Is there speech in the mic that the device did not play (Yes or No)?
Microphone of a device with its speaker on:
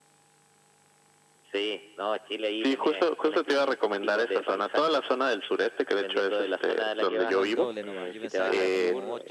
Yes